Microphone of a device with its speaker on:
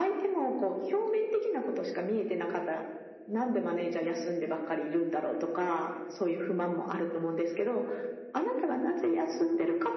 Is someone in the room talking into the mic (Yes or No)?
No